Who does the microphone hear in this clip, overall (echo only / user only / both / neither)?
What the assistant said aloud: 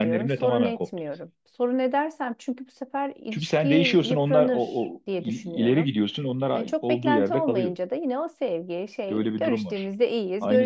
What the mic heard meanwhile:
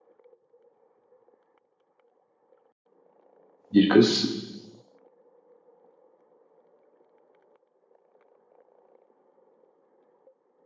user only